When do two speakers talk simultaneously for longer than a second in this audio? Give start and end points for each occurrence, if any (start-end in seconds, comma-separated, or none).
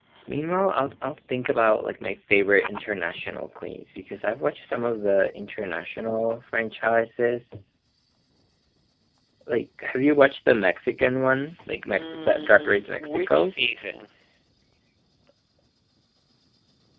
11.9-13.5